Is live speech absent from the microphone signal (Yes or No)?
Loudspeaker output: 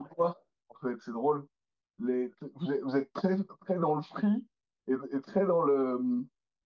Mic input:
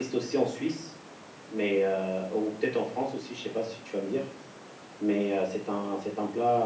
No